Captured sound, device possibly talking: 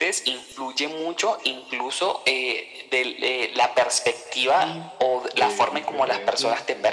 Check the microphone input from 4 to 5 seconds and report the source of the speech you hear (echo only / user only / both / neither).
both